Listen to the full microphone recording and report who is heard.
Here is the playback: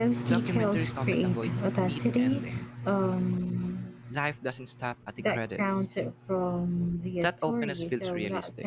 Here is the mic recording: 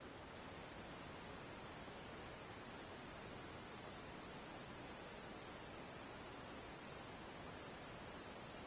neither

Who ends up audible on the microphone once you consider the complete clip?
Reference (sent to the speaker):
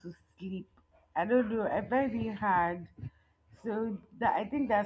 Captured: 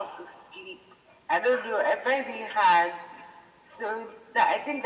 echo only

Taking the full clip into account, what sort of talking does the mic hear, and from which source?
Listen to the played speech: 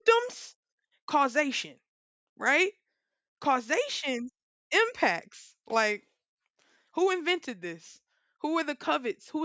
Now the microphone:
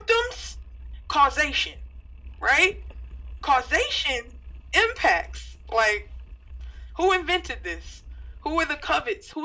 echo only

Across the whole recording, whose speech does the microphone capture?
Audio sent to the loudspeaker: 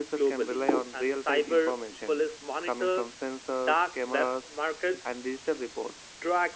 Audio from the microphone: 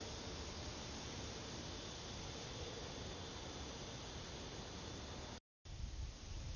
neither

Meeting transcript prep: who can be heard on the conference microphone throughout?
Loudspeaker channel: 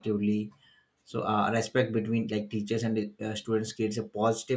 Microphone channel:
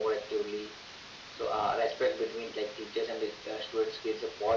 echo only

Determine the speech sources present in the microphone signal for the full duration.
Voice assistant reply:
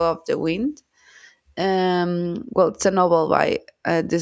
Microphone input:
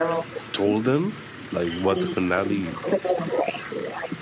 both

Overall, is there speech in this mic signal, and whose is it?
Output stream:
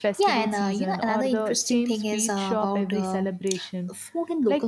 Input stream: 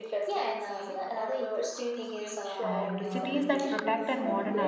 both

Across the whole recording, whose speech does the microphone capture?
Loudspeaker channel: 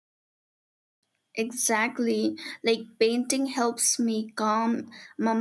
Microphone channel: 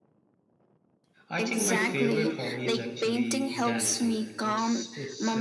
both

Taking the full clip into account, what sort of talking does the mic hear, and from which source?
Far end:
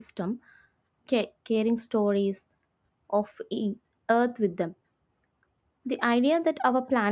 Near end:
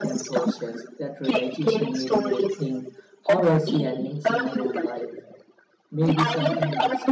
both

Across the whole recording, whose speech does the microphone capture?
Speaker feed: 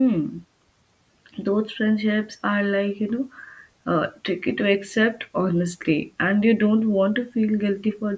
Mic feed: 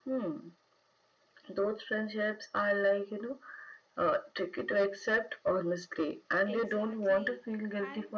both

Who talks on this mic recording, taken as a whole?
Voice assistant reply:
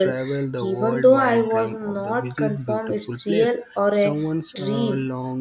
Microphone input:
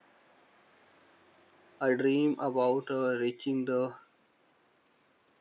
user only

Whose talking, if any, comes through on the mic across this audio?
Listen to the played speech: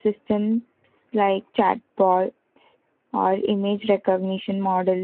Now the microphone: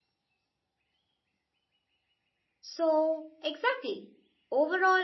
user only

